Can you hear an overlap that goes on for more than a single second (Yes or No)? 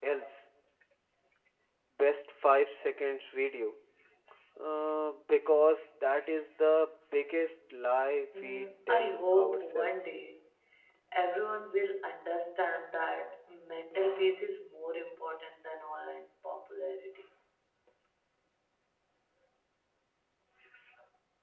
Yes